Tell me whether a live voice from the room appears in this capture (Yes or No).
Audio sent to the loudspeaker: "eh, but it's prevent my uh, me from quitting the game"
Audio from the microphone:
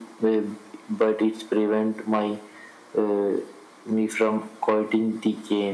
No